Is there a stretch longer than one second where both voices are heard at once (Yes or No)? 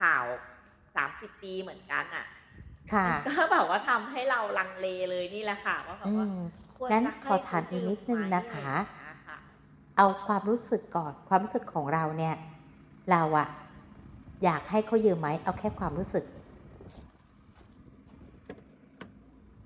Yes